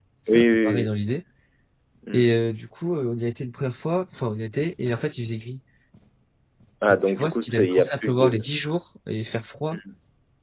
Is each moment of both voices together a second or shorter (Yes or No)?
No